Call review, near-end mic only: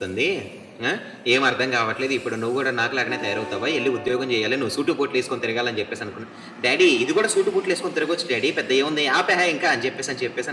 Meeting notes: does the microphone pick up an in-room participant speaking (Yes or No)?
Yes